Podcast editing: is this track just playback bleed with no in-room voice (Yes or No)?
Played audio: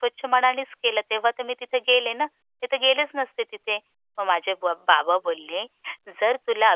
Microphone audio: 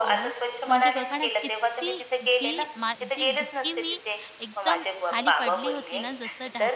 No